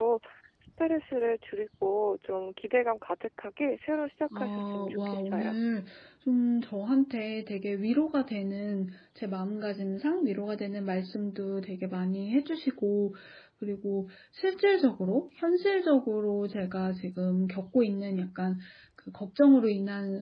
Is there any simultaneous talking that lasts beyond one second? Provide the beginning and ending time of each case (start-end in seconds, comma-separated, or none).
4.3-5.6